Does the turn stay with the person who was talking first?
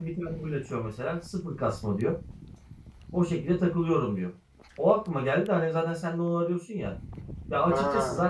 Yes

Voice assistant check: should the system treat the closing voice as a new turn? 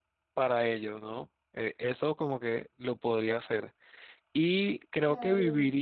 No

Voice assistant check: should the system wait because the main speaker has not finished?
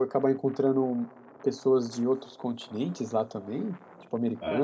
No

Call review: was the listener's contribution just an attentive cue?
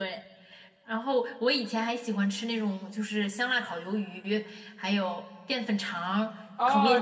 No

